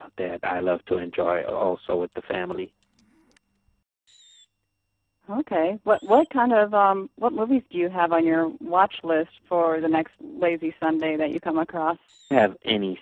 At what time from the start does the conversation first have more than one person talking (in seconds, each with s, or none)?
none